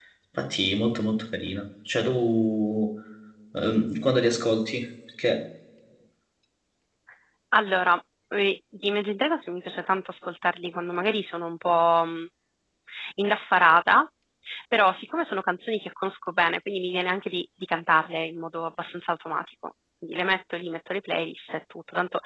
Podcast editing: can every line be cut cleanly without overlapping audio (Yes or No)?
Yes